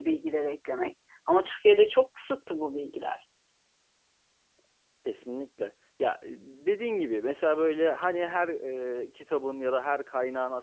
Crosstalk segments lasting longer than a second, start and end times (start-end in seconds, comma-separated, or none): none